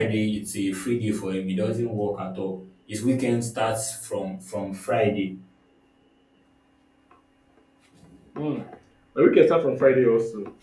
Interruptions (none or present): none